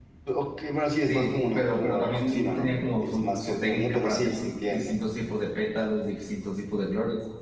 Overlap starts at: 1.0 s

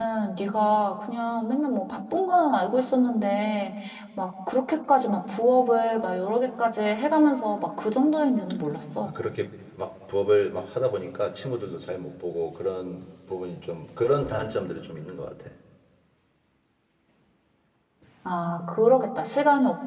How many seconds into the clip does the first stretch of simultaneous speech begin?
none

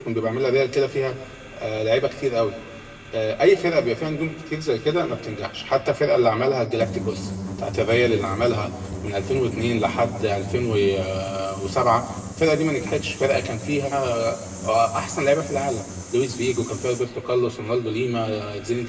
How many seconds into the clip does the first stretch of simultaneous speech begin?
none

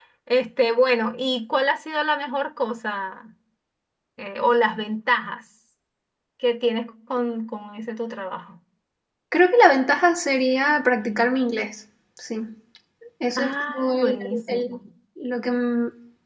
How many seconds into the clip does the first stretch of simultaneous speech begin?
13.3 s

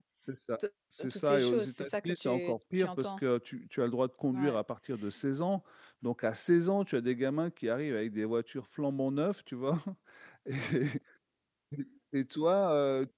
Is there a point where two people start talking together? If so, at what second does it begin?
1.1 s

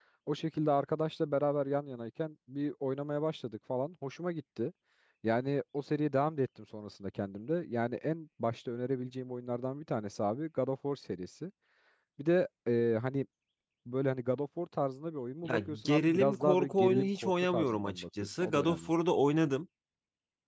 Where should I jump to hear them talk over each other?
15.4 s

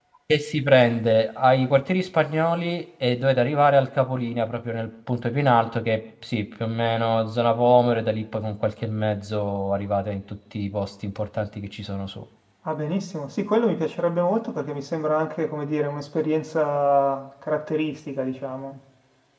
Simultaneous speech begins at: none

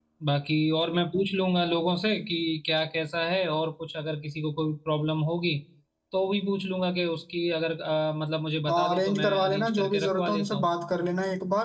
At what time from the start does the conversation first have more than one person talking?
8.7 s

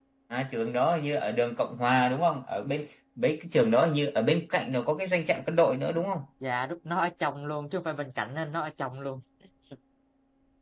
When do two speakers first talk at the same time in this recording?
none

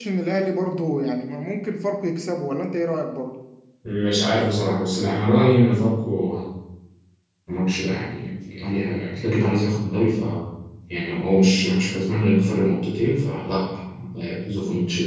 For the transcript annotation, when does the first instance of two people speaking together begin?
none

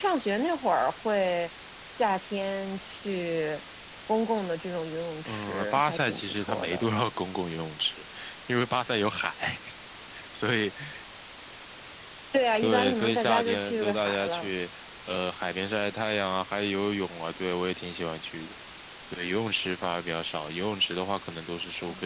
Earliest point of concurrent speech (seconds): 5.2 s

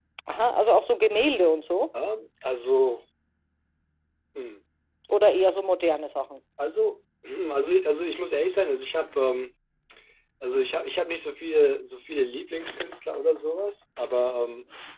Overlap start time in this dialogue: none

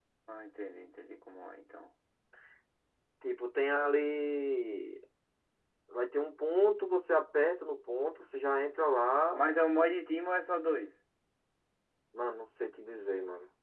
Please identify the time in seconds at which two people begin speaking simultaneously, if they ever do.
none

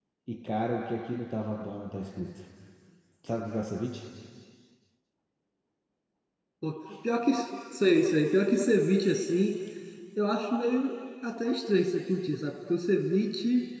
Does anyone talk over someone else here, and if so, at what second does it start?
none

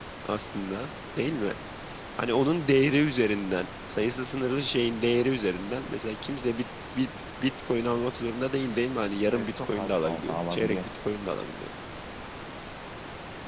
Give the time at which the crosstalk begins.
9.3 s

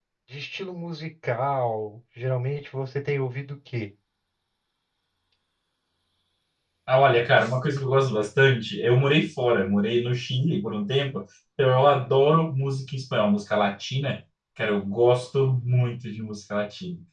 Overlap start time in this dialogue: none

